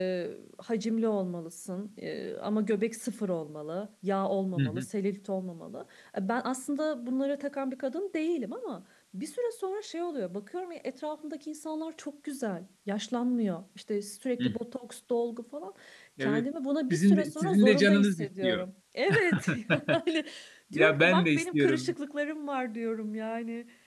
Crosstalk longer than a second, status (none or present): present